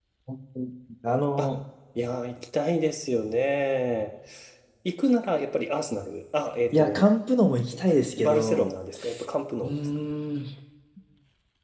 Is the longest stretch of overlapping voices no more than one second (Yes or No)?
Yes